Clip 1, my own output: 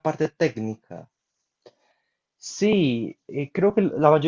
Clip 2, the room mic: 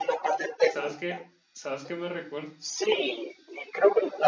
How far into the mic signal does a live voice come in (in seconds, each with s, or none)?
0.6 s